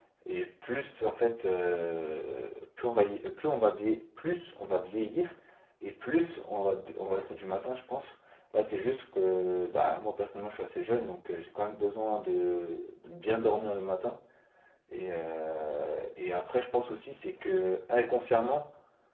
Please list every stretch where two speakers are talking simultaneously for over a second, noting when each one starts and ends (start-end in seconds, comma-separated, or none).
none